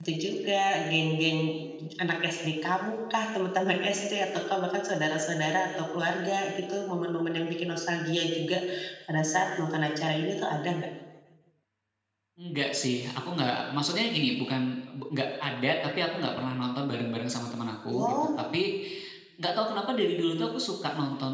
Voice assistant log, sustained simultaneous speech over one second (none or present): none